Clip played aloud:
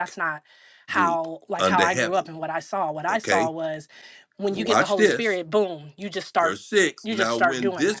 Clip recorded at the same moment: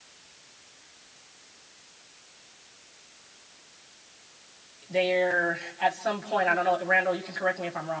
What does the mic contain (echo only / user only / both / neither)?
user only